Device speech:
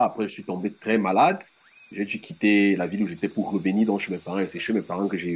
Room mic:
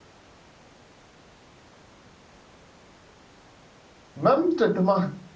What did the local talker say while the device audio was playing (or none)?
Même traitement,